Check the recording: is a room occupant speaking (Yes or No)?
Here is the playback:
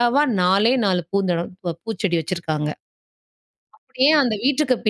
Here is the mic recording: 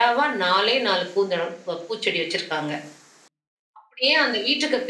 No